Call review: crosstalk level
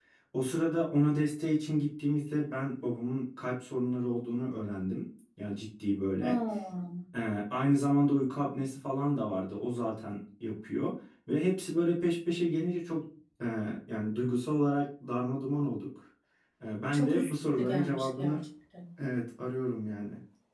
present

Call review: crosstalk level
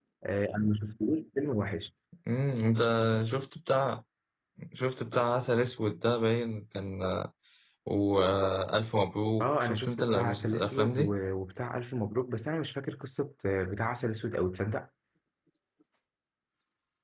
present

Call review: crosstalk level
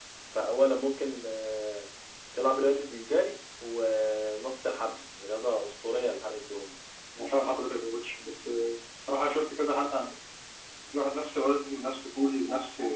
none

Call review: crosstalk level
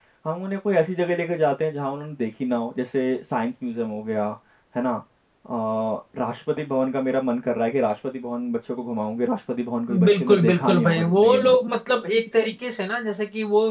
present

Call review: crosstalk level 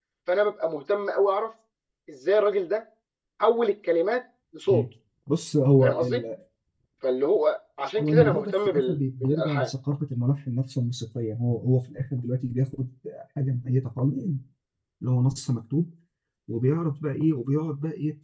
present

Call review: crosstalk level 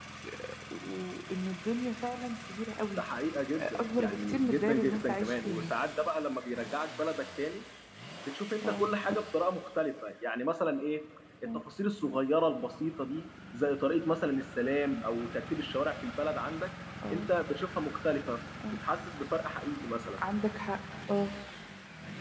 present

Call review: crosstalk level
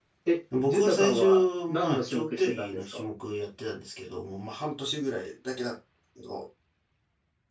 present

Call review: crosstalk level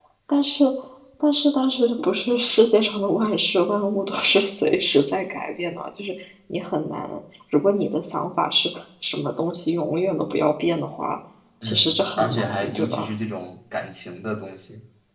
present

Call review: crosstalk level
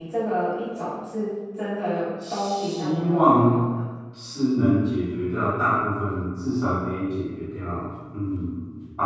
present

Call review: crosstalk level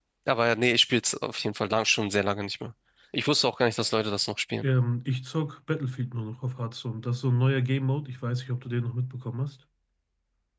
none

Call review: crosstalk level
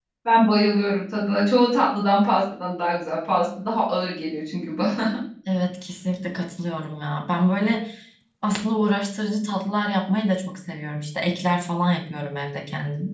none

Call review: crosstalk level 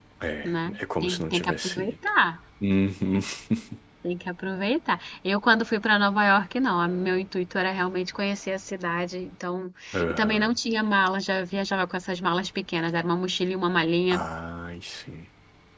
present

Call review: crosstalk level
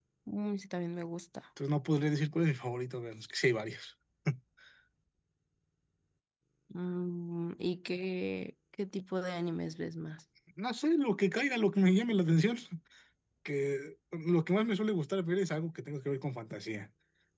none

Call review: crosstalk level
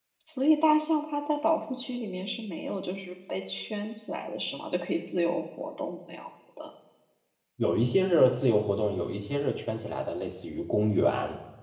none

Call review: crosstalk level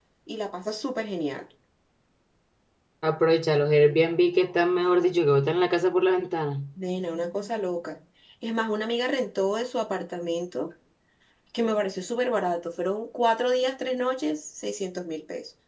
none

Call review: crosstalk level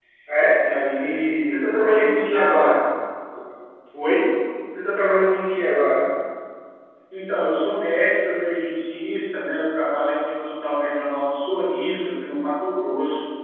present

